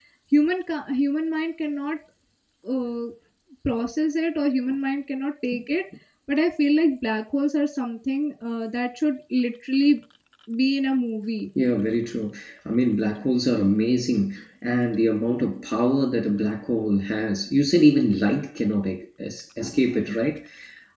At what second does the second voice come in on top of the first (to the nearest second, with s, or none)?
none